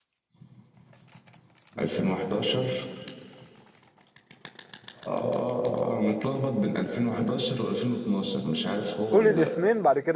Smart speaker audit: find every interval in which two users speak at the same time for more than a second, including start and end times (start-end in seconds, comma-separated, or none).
none